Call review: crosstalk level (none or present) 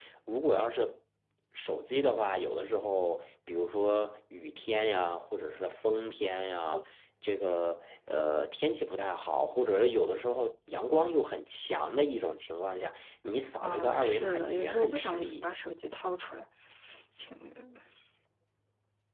present